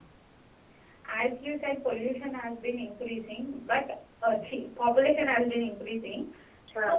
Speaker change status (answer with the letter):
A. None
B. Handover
A